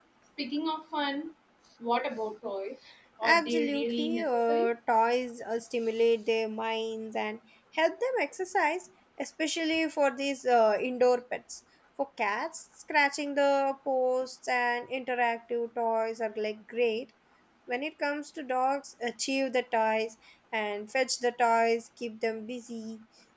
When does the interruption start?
3 s

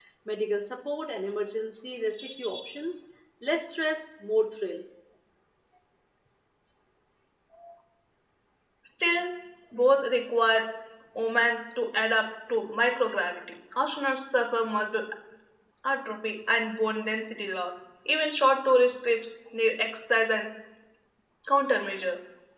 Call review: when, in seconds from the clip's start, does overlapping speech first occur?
none

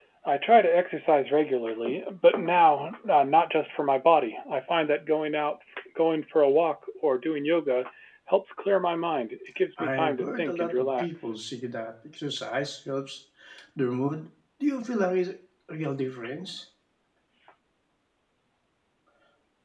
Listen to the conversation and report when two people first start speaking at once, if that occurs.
10 s

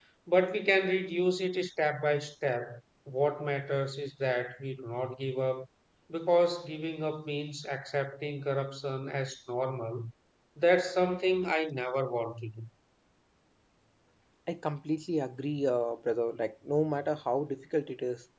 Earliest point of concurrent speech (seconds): none

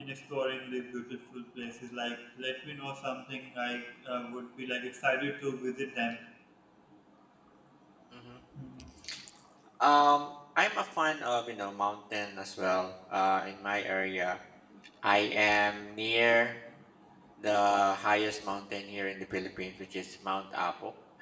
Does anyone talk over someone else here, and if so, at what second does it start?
none

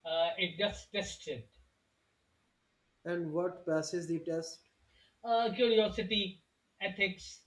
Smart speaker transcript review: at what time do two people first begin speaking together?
none

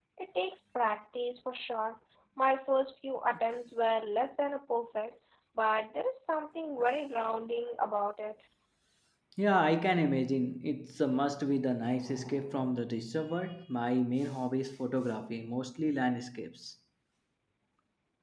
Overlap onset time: none

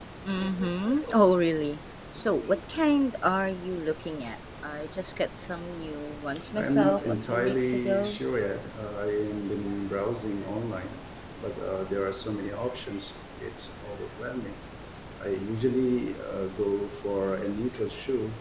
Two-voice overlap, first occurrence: 7 s

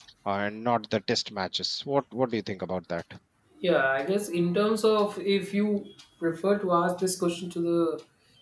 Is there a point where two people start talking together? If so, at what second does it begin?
none

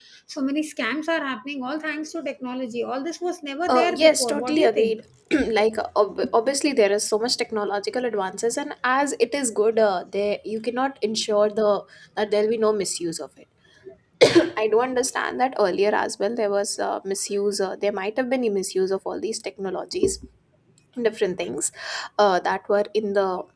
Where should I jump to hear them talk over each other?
4 s

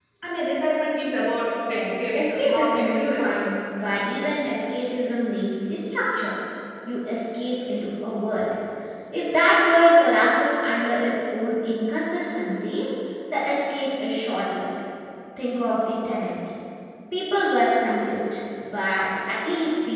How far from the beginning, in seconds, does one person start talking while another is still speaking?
2 s

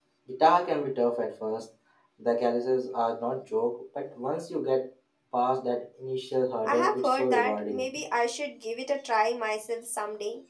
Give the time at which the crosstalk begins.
7 s

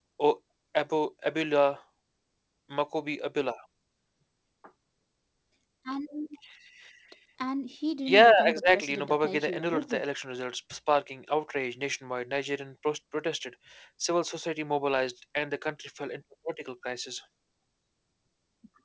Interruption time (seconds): 8 s

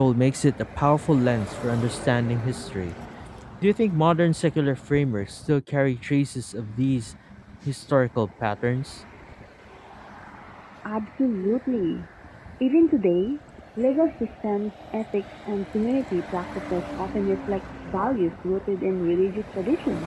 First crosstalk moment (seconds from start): none

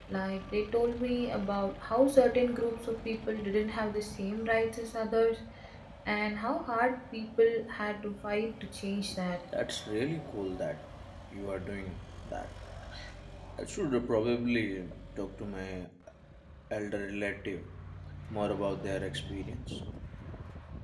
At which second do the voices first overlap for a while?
none

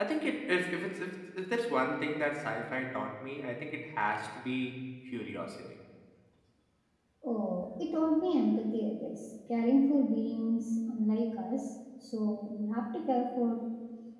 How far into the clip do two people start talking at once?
none

